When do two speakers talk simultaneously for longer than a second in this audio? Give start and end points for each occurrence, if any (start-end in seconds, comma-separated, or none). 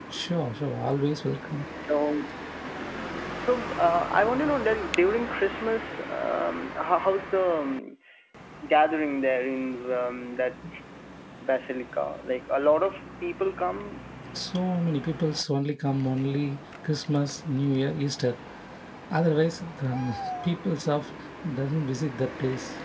none